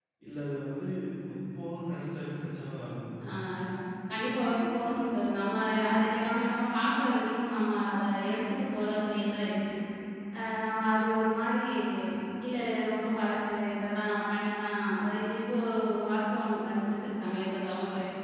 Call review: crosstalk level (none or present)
none